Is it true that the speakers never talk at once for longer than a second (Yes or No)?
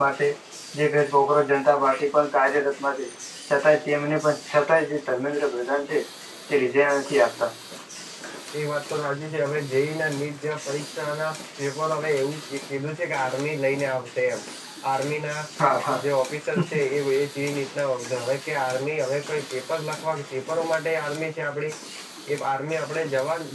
Yes